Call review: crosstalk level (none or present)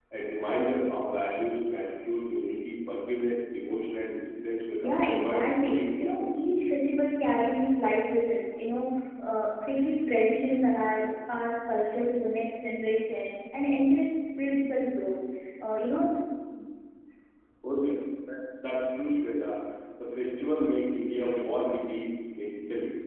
present